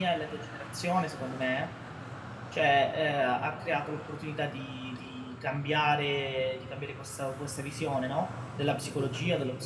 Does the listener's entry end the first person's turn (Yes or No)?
No